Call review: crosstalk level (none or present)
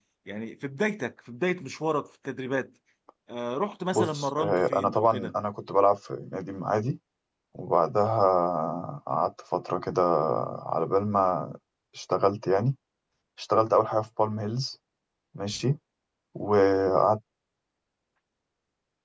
present